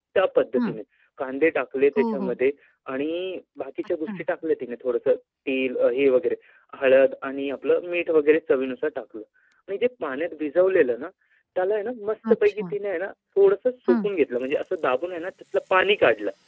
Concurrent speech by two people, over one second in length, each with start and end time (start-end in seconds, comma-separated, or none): none